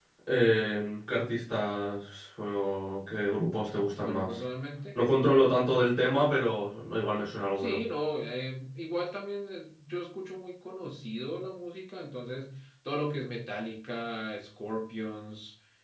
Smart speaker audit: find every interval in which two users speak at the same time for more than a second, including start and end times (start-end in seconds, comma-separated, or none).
none